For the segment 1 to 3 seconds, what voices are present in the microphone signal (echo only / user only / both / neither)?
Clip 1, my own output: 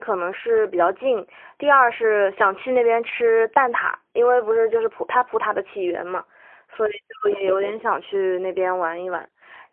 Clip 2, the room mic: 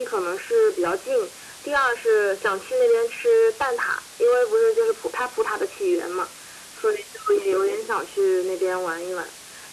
echo only